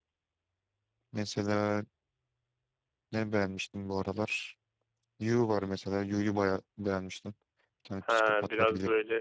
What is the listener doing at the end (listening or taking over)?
taking over